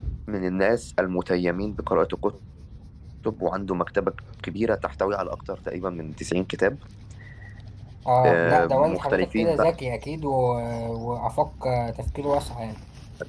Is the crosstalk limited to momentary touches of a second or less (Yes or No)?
No